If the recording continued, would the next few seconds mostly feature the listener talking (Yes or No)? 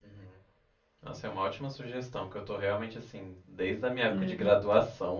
No